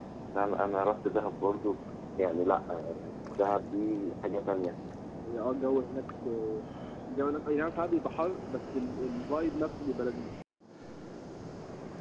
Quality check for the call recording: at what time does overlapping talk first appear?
none

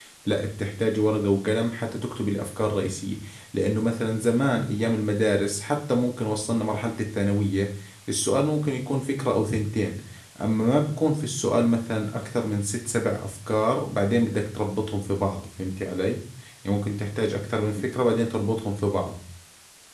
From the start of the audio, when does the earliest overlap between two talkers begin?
none

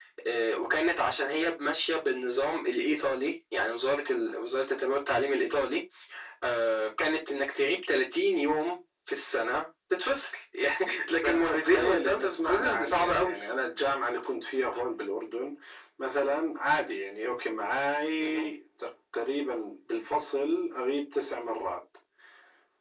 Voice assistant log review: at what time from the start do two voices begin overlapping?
11.2 s

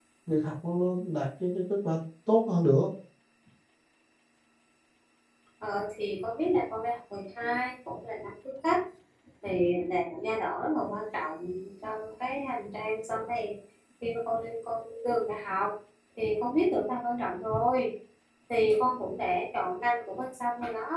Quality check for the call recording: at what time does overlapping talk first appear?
none

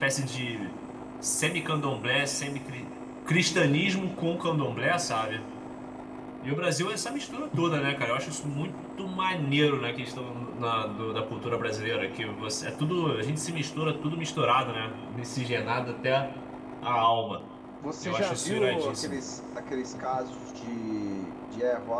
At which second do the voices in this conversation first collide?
18.0 s

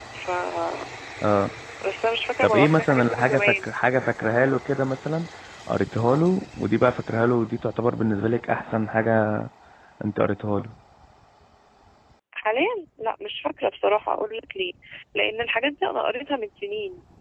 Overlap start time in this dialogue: 2.4 s

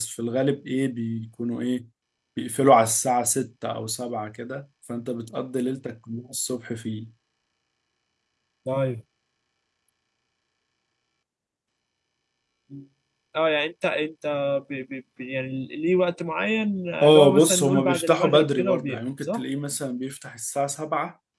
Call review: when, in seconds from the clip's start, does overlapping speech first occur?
17.0 s

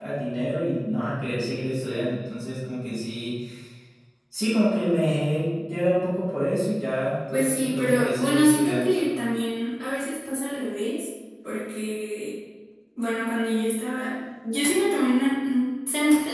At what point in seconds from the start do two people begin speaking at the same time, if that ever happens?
7.3 s

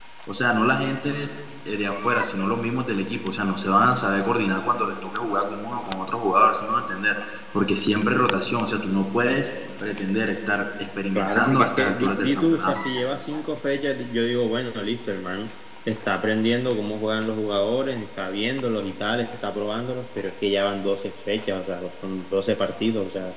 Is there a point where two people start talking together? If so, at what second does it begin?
11.2 s

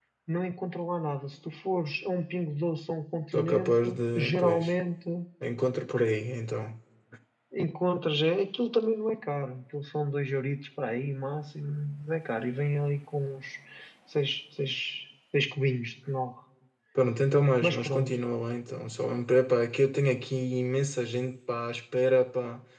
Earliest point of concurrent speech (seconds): 3.3 s

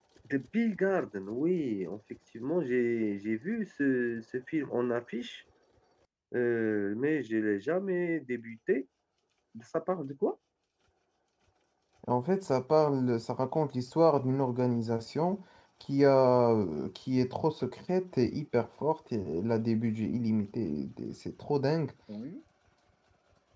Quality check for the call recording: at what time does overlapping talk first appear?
none

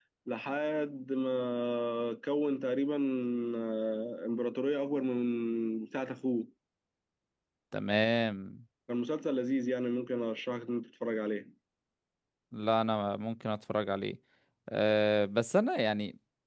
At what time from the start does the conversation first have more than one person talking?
none

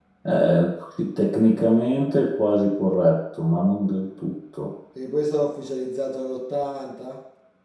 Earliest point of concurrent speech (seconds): none

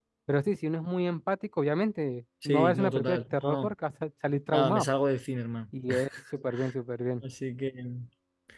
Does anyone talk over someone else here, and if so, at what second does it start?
2.4 s

